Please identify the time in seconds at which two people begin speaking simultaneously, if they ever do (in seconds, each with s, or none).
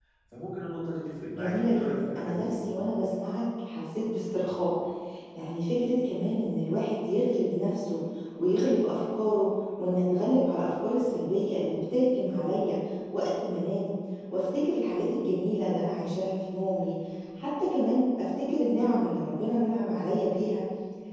1.3 s